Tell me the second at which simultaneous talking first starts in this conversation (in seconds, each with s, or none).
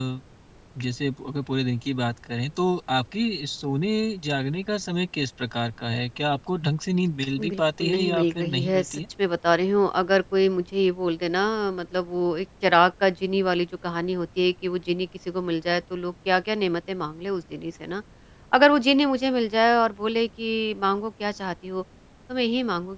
7.4 s